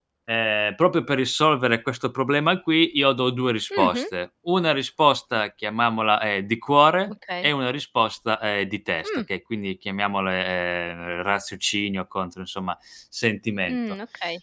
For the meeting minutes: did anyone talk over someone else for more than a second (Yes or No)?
No